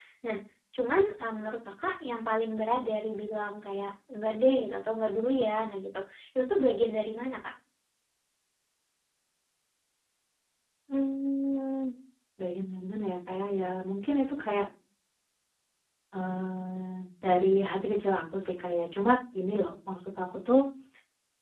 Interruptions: none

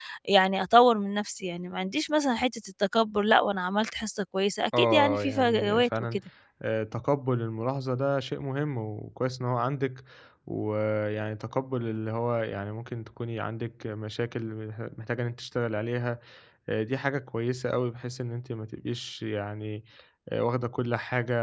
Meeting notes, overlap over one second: present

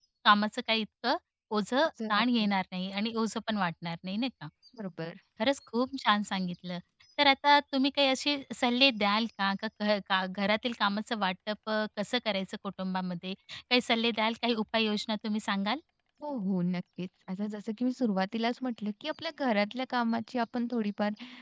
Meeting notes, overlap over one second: none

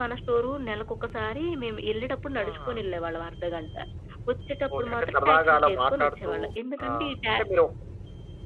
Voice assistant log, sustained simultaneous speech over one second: present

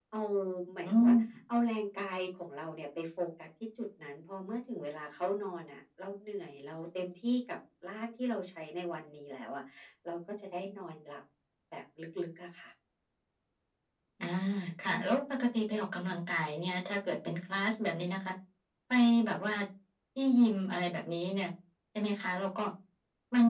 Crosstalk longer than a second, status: none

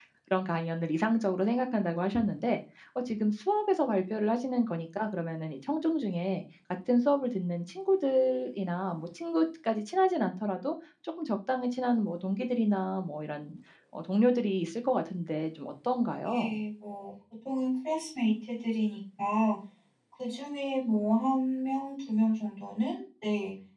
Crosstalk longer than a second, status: none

